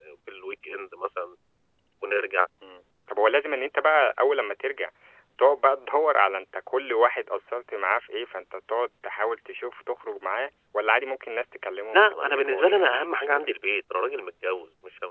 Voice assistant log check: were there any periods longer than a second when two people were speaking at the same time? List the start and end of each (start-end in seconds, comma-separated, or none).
11.9-13.5